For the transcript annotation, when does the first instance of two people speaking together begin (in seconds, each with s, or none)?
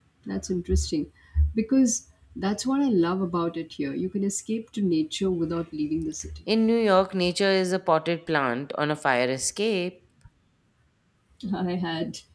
none